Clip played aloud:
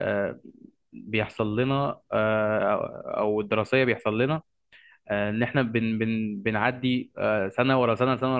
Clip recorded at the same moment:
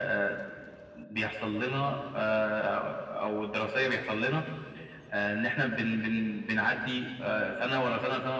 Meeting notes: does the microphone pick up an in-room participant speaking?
No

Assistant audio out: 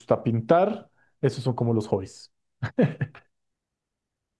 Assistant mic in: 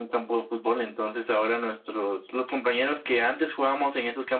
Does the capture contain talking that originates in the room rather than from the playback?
Yes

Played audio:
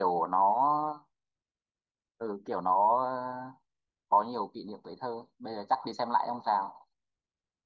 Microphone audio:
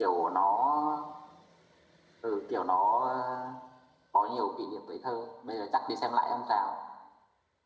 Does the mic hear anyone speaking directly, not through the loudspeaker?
No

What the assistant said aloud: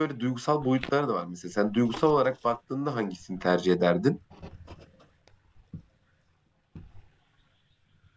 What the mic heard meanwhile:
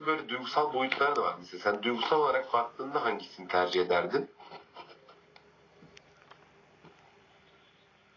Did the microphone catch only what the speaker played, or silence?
Yes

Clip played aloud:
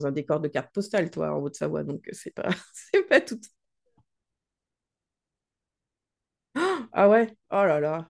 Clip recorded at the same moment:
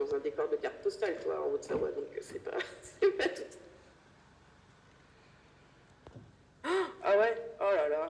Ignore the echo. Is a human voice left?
No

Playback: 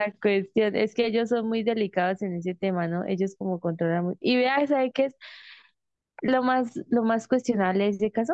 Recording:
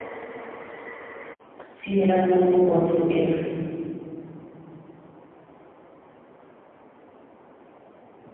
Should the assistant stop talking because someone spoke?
Yes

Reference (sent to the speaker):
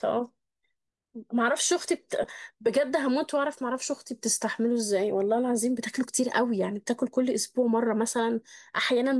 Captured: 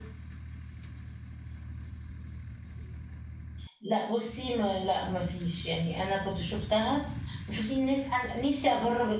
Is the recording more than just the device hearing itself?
Yes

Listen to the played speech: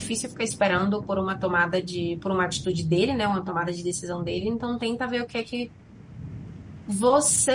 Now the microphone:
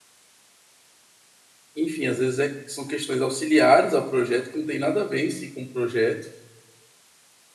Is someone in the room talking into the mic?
Yes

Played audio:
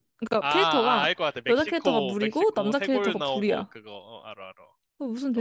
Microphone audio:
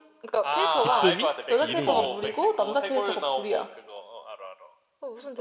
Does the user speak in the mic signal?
Yes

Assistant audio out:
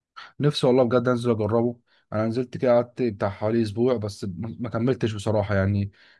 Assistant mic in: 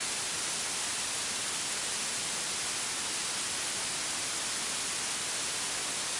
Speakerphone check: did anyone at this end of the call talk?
No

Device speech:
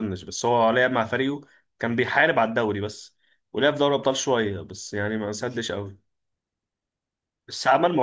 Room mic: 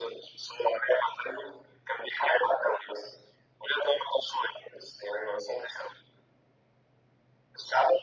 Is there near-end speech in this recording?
No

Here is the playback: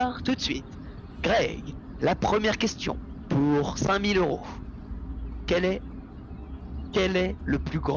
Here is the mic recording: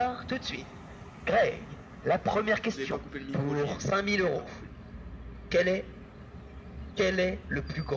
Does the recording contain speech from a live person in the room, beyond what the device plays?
Yes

